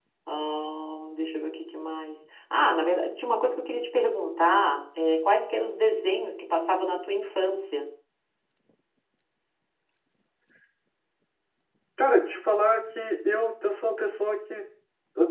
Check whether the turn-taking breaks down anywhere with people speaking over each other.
No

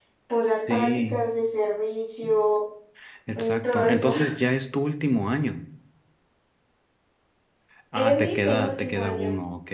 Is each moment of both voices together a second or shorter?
No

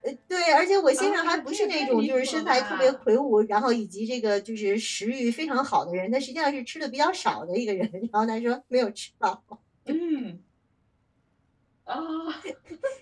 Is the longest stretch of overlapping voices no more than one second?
No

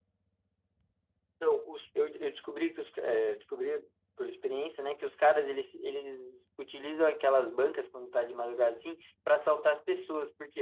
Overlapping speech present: No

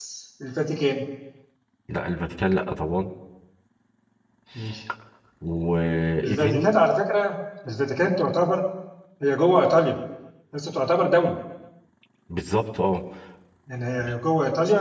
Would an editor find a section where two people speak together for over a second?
No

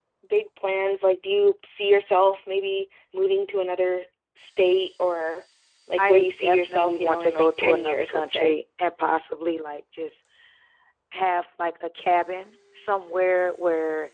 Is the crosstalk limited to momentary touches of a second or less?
No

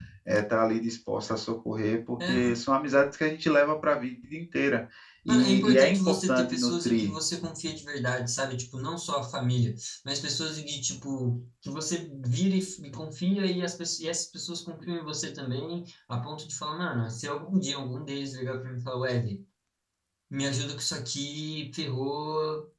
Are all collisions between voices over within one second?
No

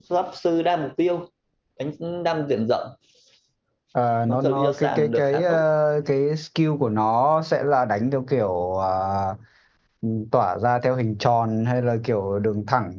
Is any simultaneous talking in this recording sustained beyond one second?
Yes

